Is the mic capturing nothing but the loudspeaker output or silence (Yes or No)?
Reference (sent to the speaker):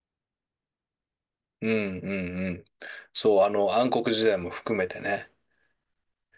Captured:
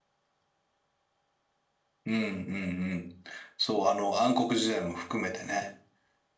Yes